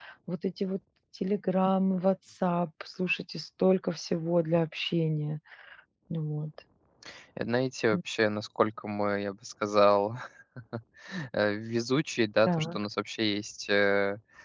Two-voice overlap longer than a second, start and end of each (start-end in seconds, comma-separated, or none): none